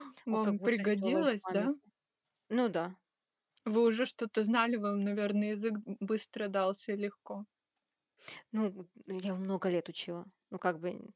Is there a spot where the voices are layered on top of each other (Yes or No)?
Yes